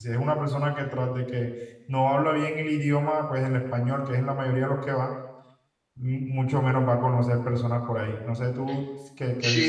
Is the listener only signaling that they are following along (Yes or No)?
No